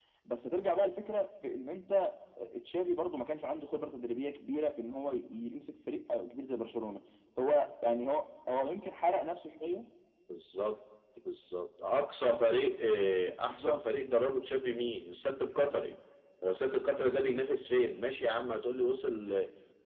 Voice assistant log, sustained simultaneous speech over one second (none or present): none